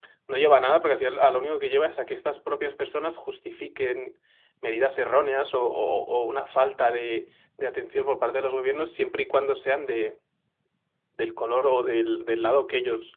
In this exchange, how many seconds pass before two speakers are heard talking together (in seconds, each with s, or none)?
none